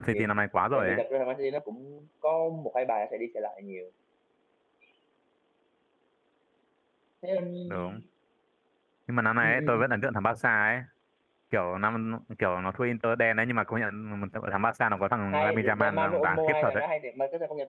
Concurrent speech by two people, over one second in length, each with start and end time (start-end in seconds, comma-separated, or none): 15.3-16.8